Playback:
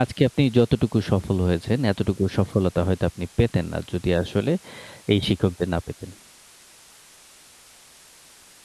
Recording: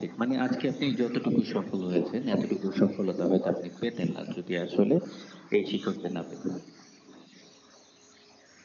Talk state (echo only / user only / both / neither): echo only